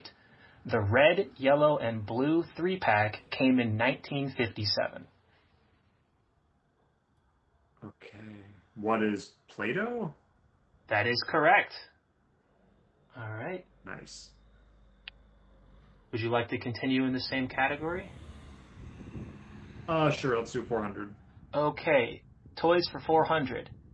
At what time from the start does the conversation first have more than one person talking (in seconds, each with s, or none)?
none